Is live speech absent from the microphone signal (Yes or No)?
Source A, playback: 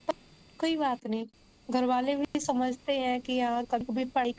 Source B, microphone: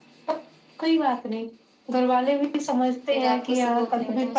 No